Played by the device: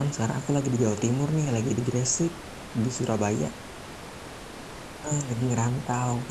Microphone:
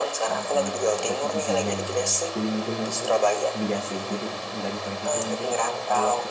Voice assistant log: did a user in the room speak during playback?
Yes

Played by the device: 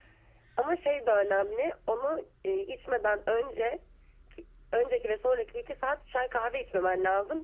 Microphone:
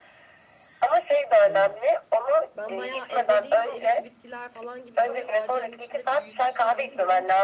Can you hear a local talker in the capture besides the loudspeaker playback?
Yes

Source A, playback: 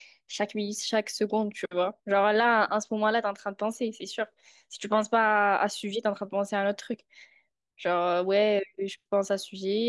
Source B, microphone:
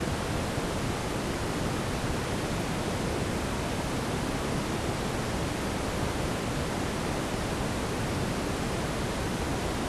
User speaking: No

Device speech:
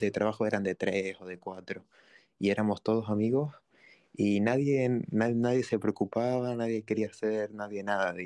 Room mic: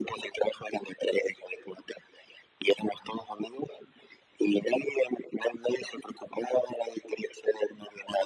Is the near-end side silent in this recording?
Yes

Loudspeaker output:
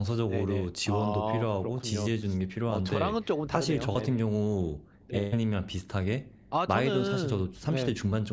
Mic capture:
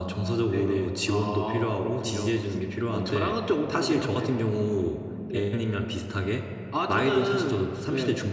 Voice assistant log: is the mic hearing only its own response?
Yes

